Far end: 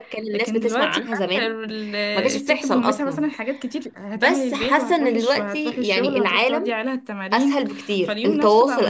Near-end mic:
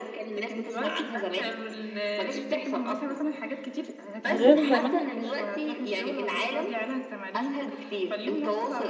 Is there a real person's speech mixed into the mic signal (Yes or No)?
Yes